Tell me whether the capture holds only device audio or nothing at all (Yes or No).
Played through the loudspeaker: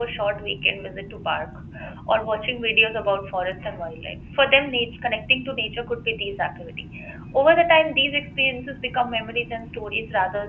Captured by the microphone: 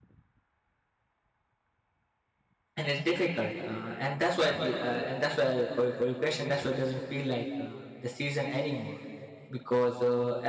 No